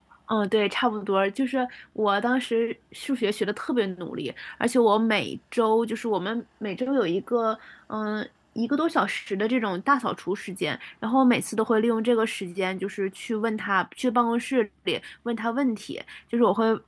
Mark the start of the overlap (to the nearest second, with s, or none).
none